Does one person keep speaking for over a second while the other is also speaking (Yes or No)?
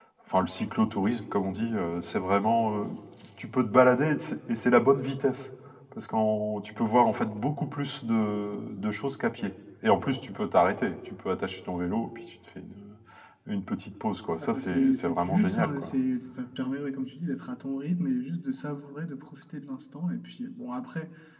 Yes